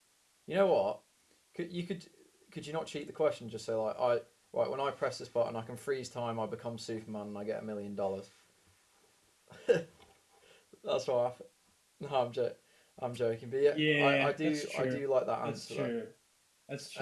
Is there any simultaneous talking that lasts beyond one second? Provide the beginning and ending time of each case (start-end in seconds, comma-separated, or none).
13.7-15.0